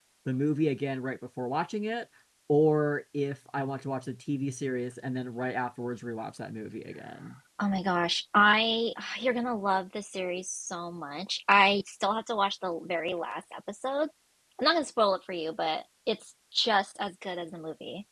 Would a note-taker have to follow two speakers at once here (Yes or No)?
No